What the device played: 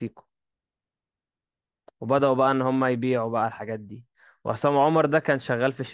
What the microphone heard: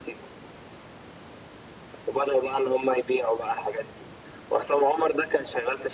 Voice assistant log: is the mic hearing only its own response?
Yes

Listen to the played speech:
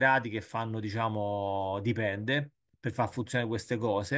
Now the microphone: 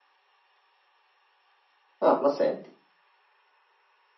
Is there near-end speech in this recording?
Yes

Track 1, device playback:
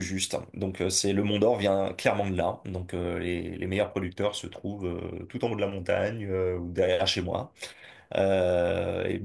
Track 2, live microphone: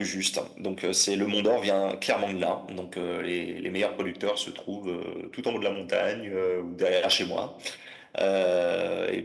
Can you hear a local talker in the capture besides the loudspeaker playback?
No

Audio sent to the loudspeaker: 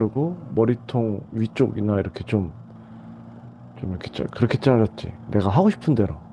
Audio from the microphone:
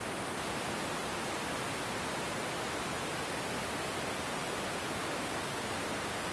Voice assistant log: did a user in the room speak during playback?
No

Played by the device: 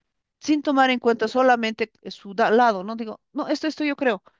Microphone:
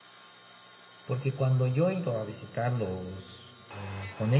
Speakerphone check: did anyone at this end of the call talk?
Yes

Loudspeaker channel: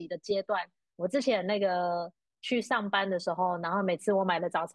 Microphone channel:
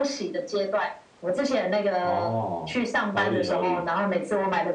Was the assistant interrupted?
Yes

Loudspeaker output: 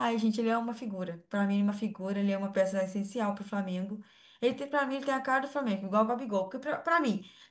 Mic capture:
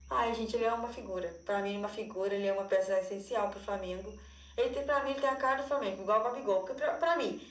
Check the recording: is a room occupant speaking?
No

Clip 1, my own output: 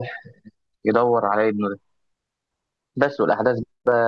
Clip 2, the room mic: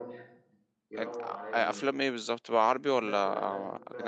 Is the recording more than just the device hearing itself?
Yes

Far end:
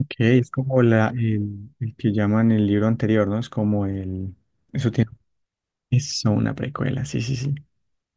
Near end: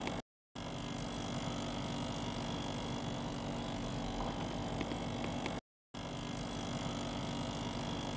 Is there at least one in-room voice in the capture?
No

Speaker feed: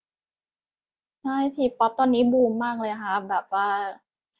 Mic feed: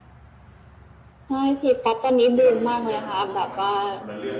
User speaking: Yes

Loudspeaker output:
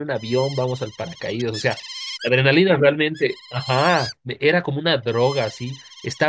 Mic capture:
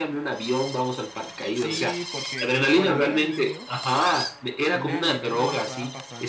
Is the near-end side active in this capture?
Yes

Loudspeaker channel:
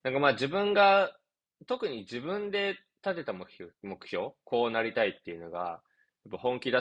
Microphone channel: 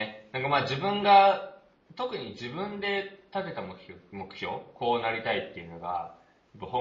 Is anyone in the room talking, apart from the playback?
No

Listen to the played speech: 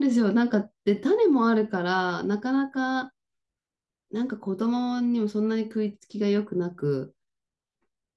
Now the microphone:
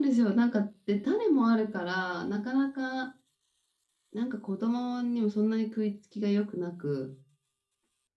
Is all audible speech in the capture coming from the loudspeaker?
Yes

